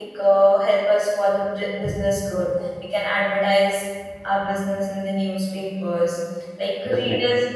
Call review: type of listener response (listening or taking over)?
listening